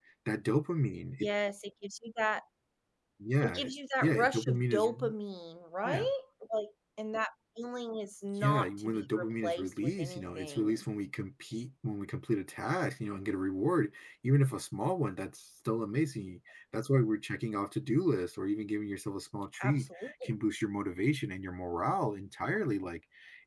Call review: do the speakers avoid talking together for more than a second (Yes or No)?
No